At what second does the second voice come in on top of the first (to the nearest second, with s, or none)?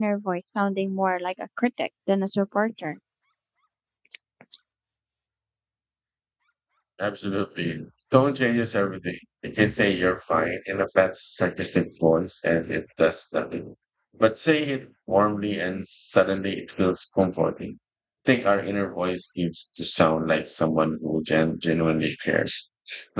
none